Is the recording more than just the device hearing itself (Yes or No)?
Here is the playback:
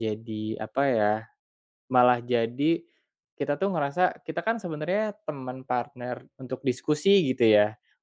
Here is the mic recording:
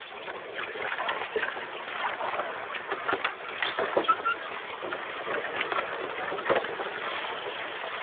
No